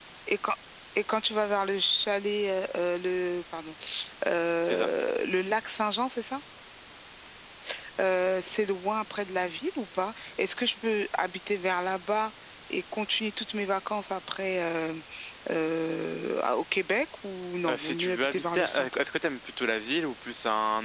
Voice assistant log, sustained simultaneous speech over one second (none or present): present